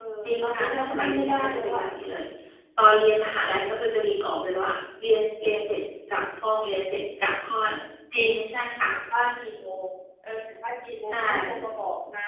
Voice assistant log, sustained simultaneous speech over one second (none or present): present